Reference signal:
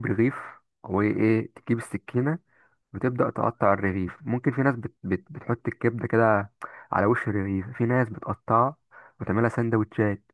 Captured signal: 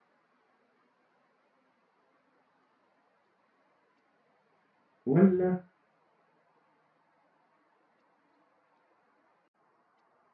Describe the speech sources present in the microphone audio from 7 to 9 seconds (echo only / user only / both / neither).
neither